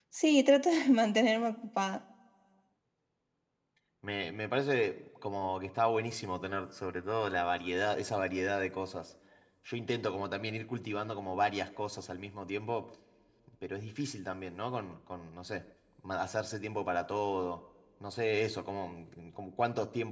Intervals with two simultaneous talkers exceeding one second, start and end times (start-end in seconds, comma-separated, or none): none